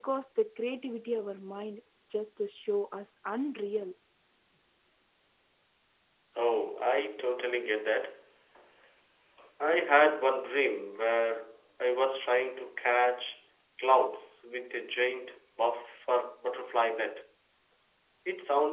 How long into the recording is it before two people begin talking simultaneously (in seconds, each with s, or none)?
none